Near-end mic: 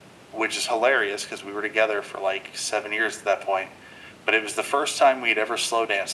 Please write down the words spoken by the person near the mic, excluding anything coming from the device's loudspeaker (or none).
none